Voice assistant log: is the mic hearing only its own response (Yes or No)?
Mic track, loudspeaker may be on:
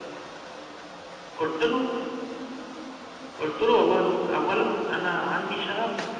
Yes